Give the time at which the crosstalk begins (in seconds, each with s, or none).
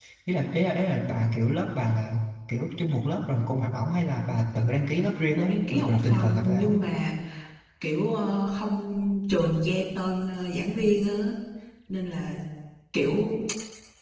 5.4 s